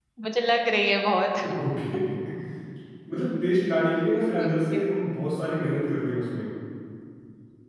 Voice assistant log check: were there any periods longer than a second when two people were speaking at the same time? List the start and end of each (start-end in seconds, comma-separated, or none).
none